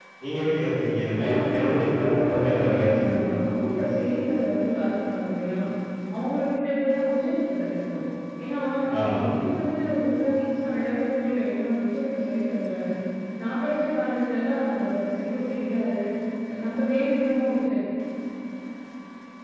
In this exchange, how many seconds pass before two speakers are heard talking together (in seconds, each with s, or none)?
1.2 s